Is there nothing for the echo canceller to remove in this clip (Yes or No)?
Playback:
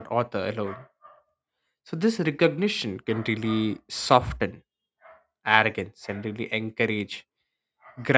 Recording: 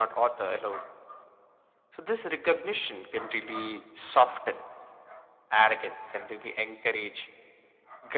No